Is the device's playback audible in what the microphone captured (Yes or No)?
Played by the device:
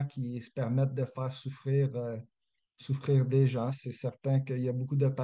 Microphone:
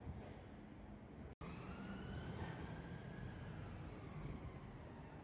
No